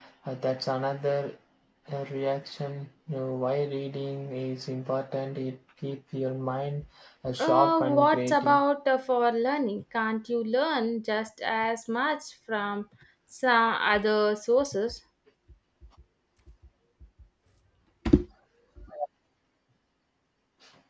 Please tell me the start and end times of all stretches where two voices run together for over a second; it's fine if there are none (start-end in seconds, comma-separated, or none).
7.4-8.6